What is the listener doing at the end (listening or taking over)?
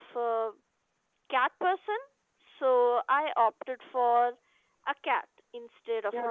taking over